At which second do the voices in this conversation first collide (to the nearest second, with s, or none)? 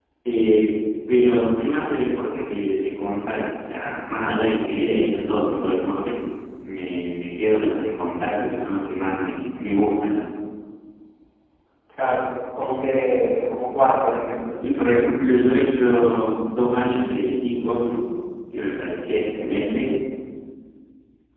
none